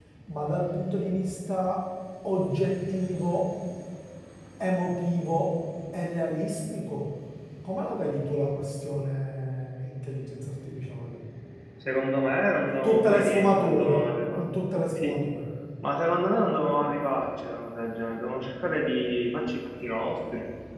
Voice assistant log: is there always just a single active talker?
No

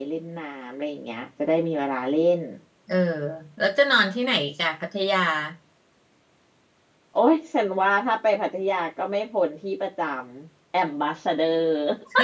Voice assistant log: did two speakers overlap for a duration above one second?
No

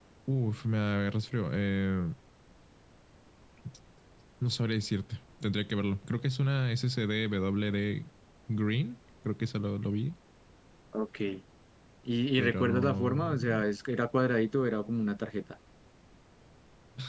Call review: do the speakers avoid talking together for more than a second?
No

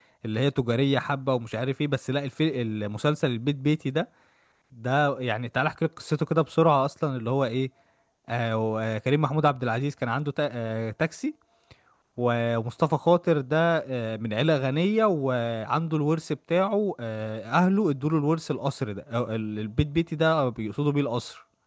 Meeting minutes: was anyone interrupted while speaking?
No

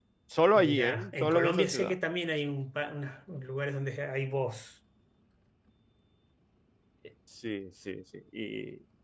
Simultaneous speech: Yes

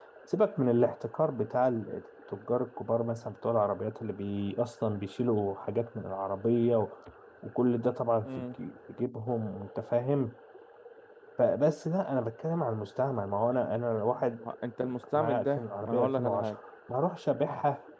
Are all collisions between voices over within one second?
No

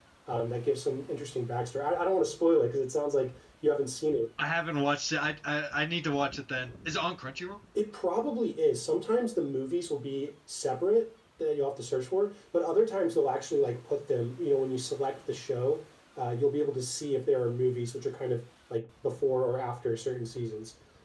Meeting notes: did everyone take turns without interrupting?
Yes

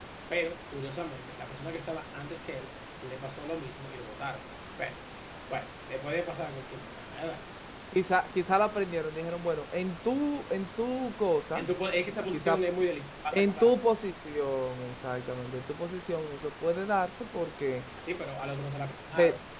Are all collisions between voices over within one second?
Yes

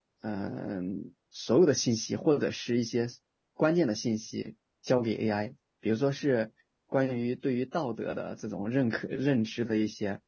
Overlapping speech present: No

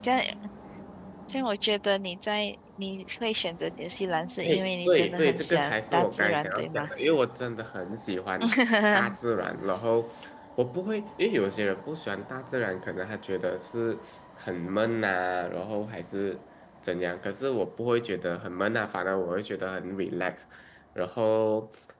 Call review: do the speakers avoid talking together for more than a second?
No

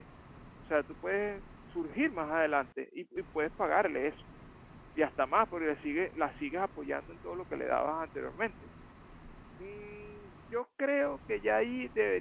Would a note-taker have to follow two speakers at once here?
No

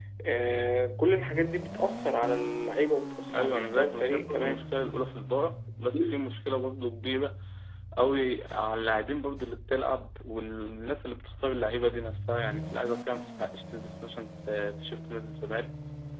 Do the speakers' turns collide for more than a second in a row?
Yes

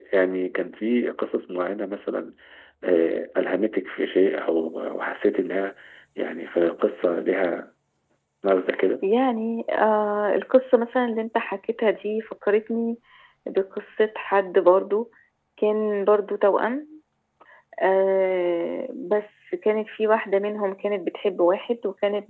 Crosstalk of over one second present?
No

